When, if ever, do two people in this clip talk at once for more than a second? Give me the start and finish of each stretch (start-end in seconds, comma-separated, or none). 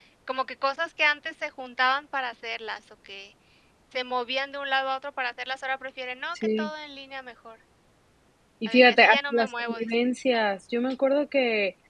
8.7-9.9